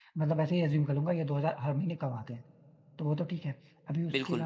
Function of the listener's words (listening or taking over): listening